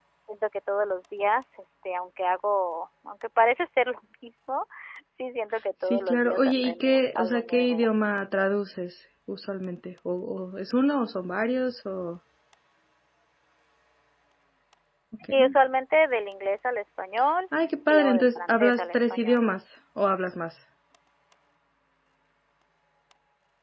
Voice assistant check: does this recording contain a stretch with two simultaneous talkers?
Yes, from 5.8 s

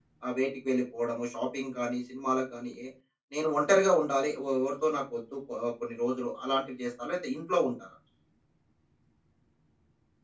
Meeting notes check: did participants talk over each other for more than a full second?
No

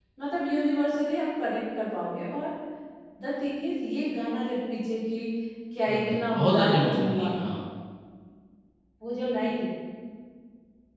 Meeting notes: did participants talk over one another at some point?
Yes, from 5.9 s

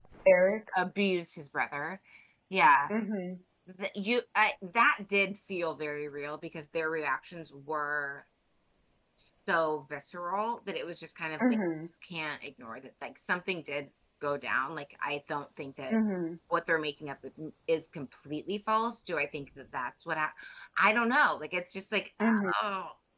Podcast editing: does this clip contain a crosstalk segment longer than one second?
No

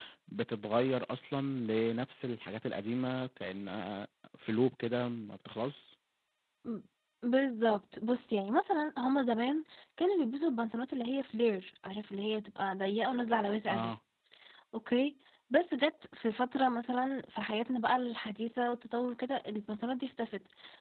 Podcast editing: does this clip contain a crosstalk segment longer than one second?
No

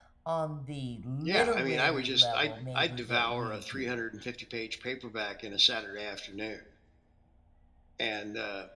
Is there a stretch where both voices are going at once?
Yes, from 1.2 s

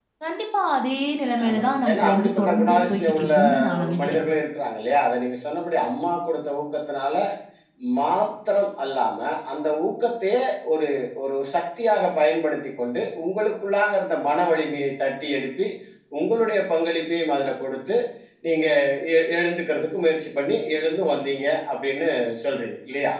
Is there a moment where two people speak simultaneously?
Yes, from 1.4 s

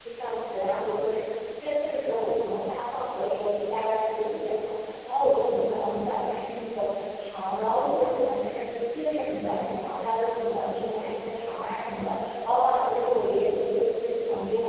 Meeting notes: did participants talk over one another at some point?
No

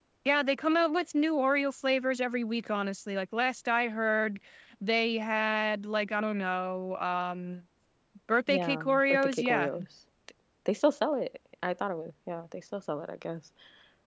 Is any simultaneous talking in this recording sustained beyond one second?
Yes, from 8.5 s

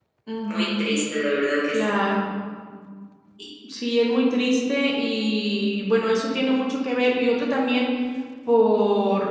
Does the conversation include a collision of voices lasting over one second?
No

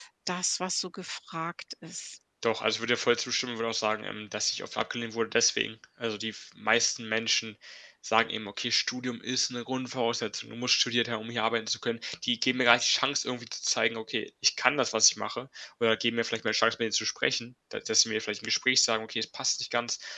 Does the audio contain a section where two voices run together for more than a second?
No

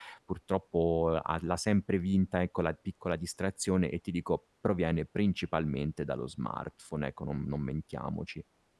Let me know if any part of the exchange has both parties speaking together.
No

